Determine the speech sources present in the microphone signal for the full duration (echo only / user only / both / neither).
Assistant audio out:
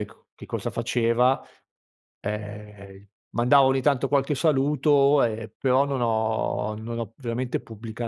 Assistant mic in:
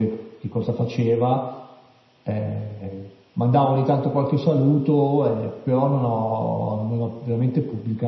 echo only